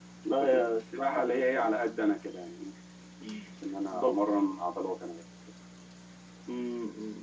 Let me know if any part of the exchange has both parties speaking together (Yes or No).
Yes